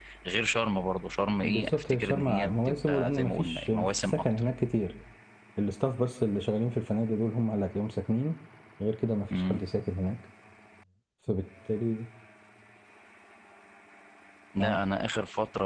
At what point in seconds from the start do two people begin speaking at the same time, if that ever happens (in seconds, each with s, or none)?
1.4 s